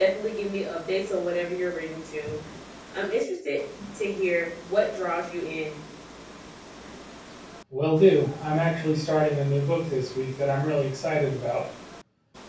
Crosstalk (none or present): none